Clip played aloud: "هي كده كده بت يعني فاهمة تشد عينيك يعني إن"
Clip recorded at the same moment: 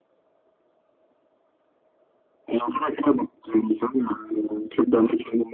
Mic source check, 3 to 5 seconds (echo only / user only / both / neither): echo only